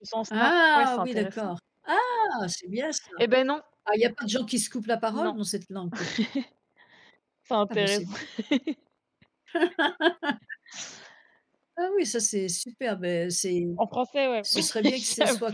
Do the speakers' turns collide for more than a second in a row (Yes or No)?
Yes